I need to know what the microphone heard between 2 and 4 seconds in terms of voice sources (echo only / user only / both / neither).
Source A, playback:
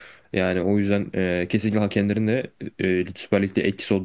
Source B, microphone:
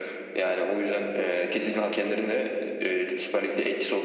echo only